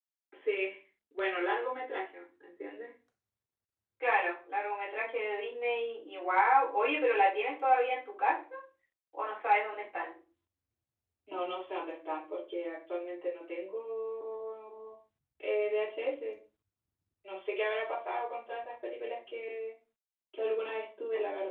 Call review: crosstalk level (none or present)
none